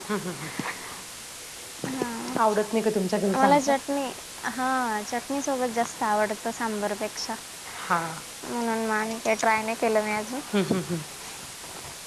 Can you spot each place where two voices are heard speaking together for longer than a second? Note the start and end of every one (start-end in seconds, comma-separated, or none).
none